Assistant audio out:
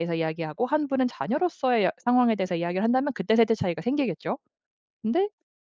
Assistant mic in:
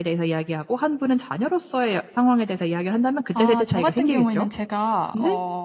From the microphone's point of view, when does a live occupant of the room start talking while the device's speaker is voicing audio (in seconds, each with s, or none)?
3.3 s